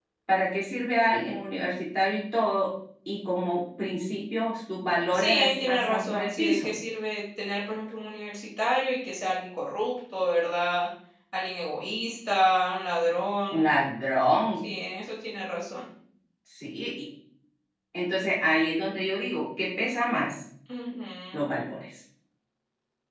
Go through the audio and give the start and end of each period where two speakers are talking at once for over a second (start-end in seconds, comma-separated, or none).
5.1-6.7